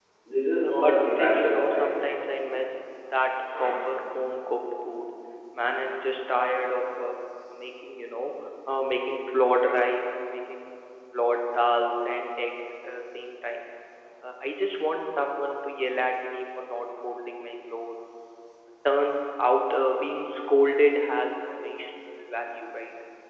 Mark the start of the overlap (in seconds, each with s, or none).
0.6 s